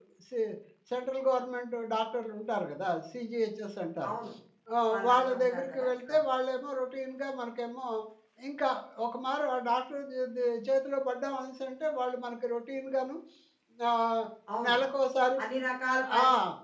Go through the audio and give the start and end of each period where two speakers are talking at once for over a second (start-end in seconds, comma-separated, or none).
4.9-6.1